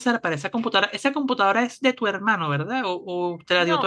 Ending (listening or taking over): taking over